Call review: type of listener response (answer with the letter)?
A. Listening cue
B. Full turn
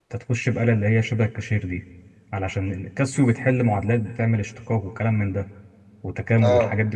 A